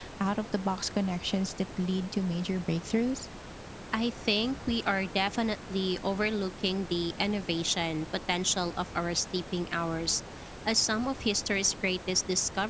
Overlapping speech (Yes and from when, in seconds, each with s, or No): No